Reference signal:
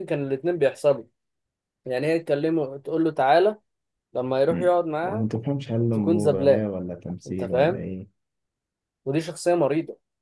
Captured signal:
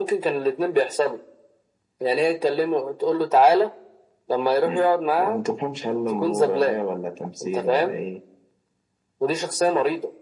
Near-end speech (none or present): none